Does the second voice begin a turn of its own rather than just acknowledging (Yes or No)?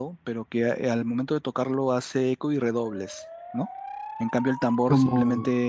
No